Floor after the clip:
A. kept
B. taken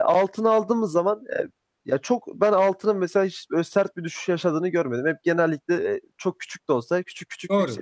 B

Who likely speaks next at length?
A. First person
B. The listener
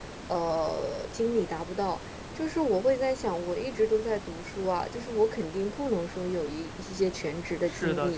B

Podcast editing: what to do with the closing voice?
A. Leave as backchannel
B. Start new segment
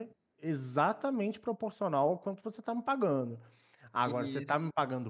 A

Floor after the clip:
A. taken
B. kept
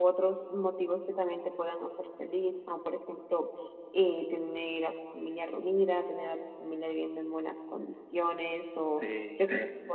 B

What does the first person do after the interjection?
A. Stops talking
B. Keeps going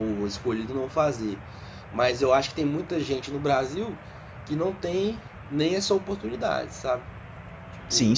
A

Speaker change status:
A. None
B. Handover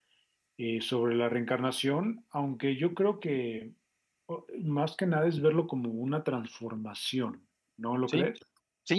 B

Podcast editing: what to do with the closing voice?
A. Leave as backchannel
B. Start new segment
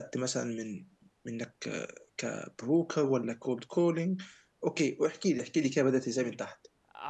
B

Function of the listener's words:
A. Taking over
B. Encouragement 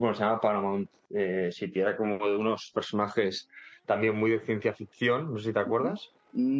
A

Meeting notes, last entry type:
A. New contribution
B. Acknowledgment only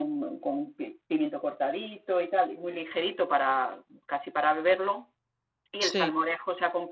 B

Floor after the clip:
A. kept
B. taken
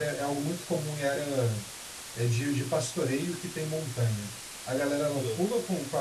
A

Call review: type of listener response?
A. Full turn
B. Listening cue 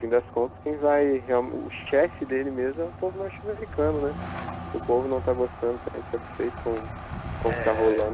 B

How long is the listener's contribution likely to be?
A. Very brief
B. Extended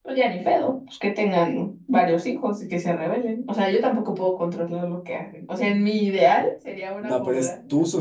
B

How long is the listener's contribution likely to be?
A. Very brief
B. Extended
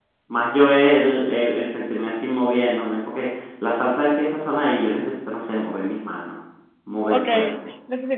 B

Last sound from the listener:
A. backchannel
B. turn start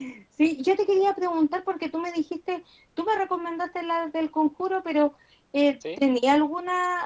A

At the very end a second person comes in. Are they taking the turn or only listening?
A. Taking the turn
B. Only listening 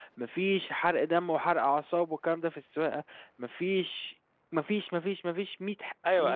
A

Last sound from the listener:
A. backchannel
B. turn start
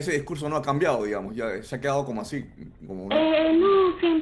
B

